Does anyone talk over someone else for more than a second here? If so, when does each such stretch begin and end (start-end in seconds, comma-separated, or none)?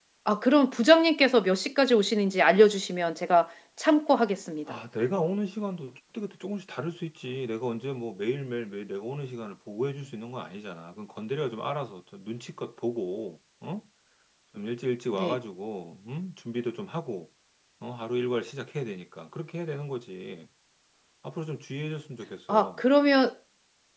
none